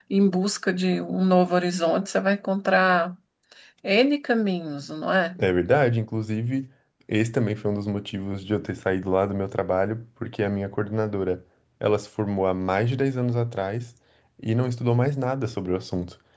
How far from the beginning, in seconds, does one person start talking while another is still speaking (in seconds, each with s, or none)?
none